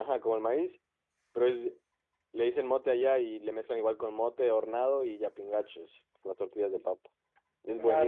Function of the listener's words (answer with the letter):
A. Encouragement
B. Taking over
B